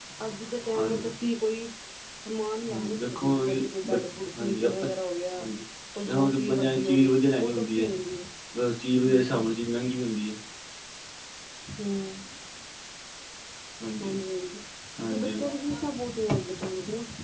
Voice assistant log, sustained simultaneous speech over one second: present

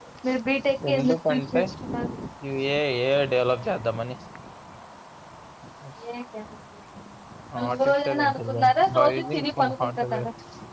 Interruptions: present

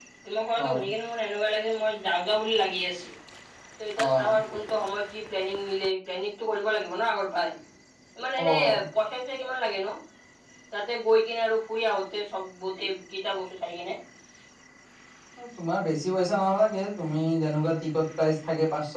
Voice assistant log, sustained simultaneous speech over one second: none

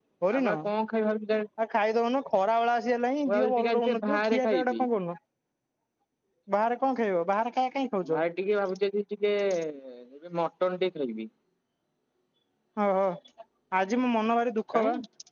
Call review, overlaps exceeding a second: present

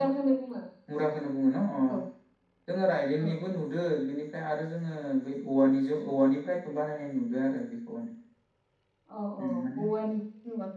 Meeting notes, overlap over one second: none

